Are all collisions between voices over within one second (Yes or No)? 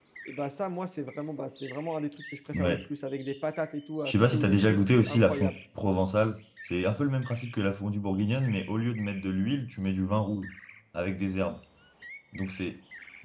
No